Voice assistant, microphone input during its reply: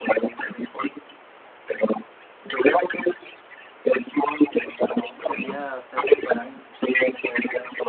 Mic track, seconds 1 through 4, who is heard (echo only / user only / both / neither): echo only